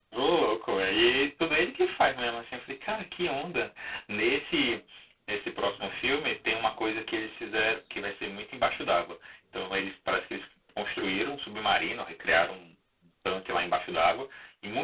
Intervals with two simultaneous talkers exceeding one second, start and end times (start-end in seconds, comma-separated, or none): none